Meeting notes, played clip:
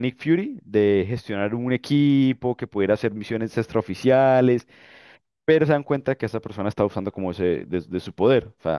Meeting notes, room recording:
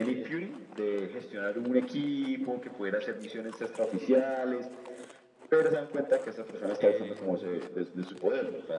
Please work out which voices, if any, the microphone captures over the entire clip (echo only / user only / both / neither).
both